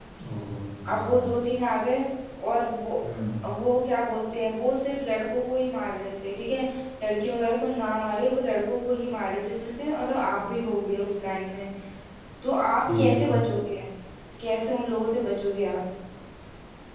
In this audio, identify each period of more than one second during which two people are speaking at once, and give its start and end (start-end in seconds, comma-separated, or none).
none